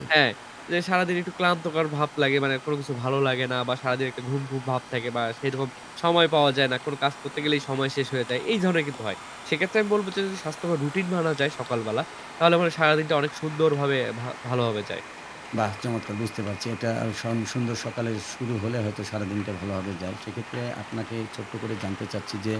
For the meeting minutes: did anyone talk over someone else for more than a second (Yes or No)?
No